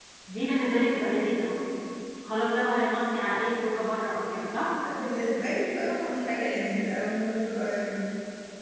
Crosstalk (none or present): none